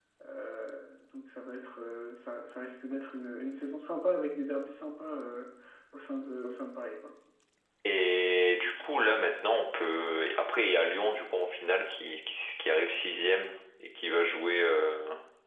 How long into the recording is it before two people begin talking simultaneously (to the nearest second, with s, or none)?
none